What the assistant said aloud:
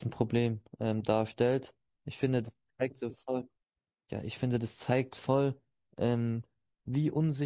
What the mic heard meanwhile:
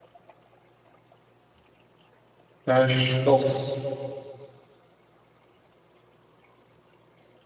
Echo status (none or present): none